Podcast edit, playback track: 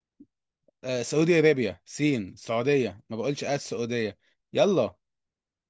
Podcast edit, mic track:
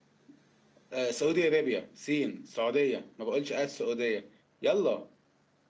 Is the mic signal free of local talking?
Yes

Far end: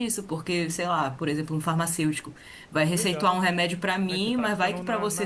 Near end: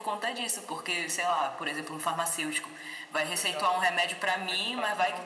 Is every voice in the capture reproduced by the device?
Yes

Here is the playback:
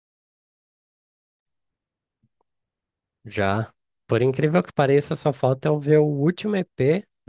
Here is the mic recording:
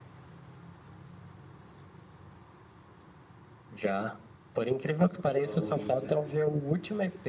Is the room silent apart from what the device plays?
No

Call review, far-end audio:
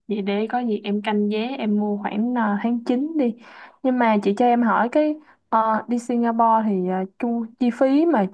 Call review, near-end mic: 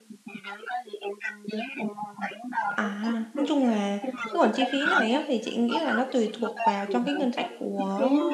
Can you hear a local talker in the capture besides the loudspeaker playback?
Yes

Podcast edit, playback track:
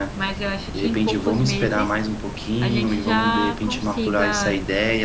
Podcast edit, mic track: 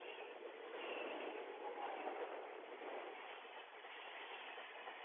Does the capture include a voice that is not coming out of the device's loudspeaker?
No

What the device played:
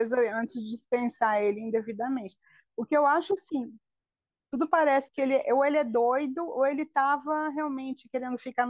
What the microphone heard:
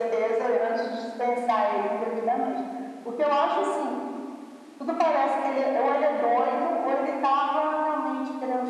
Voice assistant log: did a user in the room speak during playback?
No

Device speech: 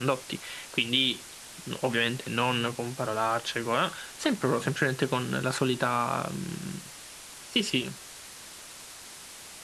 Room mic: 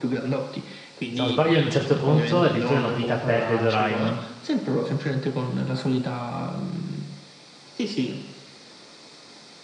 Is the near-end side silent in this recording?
No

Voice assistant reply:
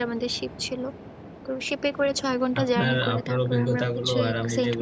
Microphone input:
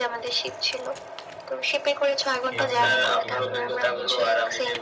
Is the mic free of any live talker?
No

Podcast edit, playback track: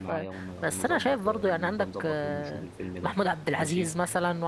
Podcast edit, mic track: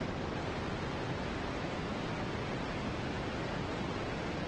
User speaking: No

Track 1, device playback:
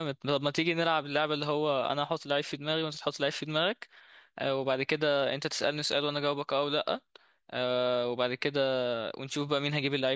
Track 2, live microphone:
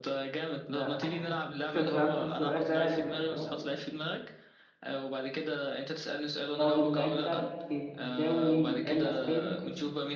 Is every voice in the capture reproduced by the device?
No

